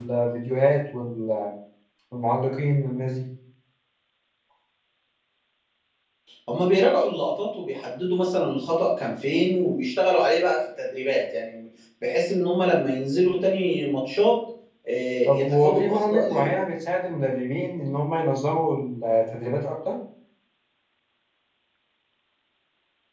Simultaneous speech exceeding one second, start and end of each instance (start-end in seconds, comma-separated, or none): 15.3-16.6